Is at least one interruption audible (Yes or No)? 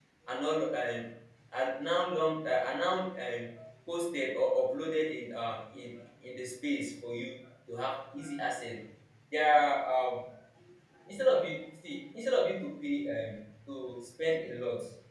No